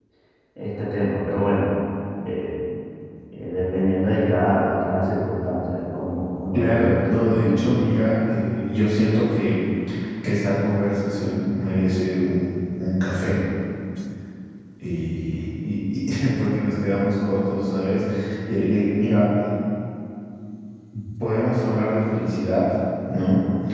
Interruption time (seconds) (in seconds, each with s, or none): 6.5 s